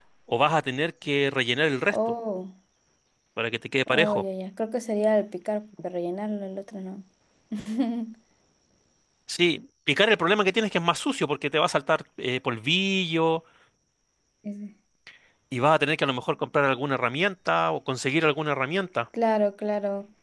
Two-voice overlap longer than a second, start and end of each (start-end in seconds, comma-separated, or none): none